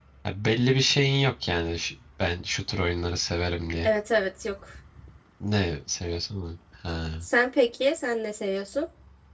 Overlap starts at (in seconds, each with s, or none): none